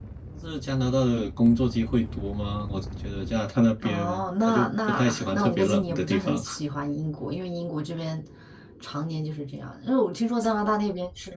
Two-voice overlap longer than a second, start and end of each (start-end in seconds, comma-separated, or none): 3.8-6.4